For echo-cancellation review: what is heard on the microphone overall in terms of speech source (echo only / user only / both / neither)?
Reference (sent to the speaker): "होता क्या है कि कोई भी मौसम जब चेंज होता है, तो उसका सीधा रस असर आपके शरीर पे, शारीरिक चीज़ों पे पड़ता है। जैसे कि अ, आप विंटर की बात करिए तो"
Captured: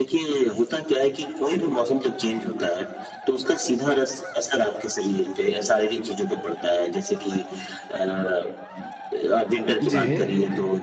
both